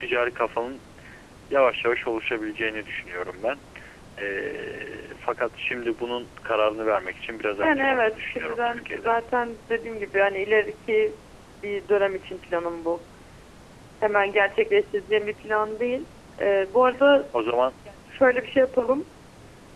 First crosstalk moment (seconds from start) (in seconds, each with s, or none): 7.6 s